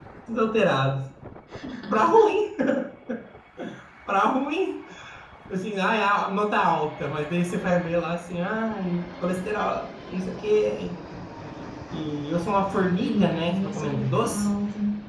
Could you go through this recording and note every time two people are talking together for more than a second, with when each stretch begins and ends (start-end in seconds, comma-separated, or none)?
13.0-14.5